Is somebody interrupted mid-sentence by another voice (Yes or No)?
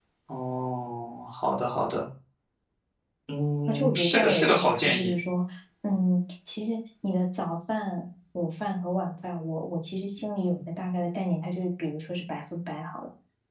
Yes